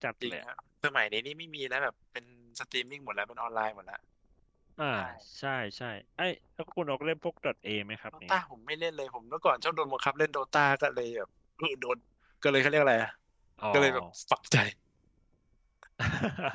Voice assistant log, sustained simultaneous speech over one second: none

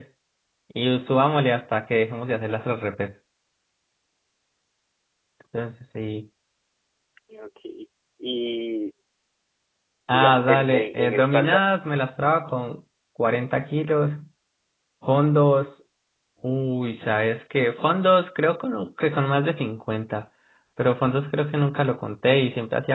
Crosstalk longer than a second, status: present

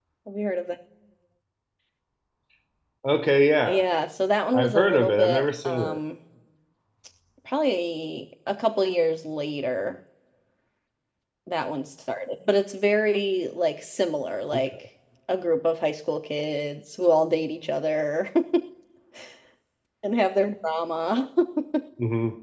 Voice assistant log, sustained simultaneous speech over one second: present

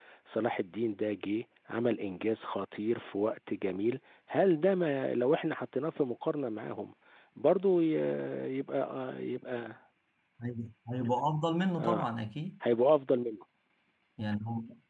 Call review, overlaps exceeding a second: none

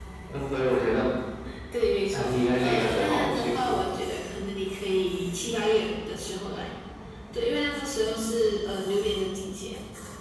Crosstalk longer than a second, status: present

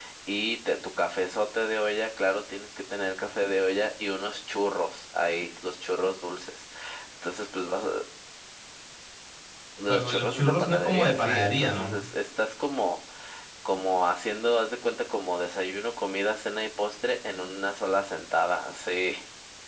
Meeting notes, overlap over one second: present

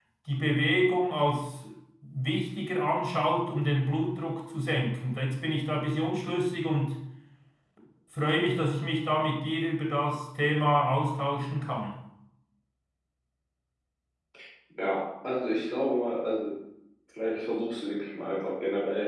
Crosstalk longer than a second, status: none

